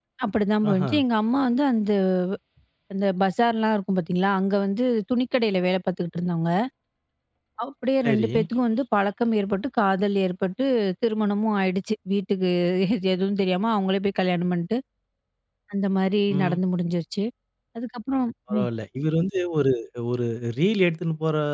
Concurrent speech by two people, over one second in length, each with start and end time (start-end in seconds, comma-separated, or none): none